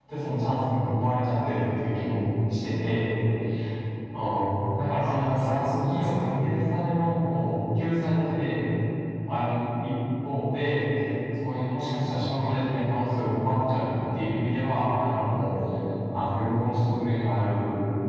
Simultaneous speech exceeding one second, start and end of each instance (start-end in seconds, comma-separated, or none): 5.0-6.3